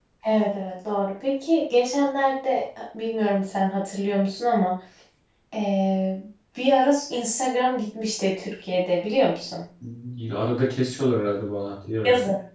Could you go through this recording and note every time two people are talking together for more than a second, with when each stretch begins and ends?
none

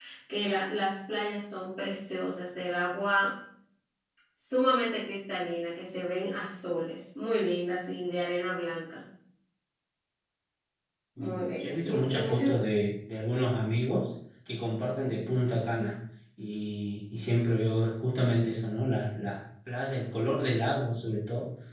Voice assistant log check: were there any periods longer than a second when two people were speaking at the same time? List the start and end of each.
11.2-12.5

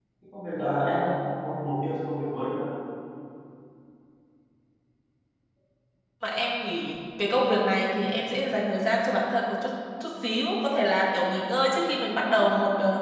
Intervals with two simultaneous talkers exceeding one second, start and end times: none

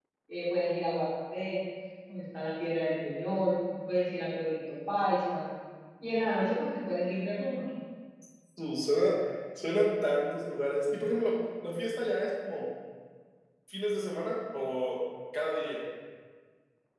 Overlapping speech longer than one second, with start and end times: none

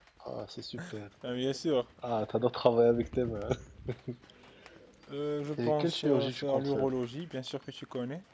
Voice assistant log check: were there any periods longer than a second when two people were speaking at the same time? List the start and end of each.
5.7-6.9

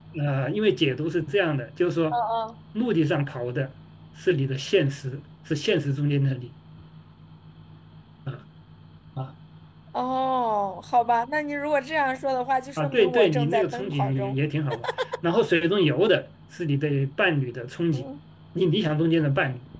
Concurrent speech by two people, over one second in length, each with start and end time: 12.8-14.4

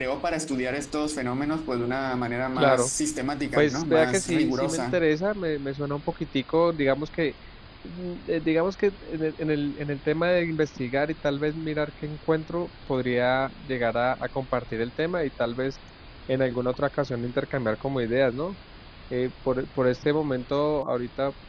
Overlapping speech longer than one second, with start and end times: 3.5-5.0

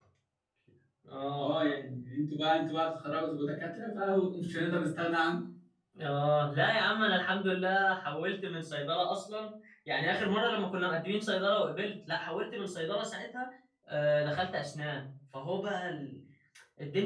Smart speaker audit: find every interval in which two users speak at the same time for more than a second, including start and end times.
none

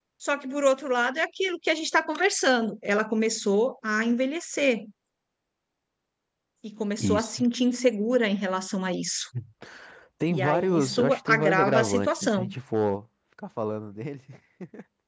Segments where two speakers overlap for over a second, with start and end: 10.3-12.5

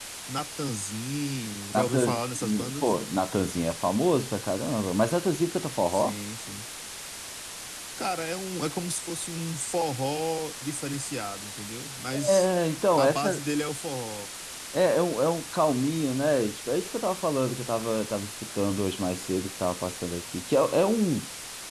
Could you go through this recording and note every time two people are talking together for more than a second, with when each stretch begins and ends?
1.7-2.9

